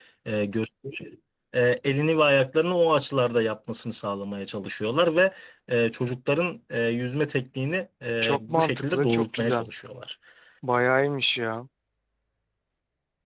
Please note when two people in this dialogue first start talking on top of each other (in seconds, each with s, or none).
8.2 s